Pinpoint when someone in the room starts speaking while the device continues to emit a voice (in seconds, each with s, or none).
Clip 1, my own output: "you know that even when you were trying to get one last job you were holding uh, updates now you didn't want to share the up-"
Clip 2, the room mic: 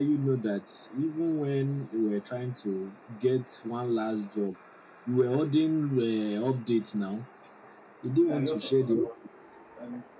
8.1 s